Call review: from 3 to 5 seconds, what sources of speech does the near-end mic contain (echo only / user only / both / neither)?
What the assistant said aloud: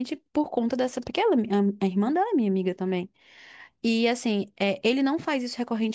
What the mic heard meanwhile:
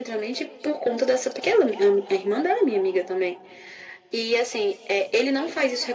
echo only